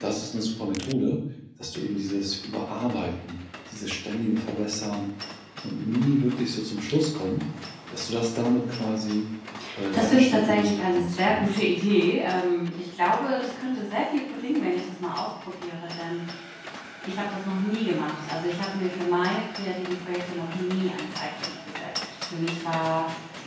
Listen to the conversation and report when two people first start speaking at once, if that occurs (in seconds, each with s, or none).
9.9 s